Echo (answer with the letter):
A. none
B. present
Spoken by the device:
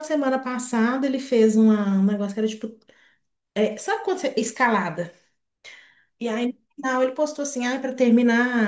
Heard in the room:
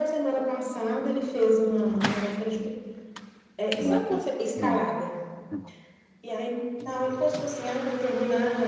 B